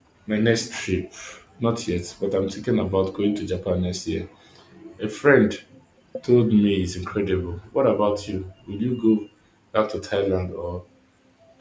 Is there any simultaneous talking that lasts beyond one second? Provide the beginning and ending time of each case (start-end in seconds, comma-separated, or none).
none